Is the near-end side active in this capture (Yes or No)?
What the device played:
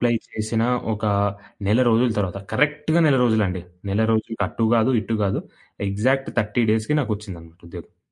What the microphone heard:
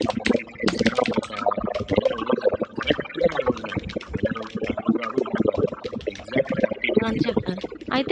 Yes